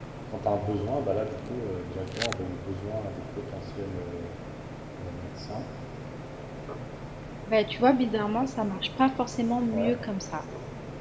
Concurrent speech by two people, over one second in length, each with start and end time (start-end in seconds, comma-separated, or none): none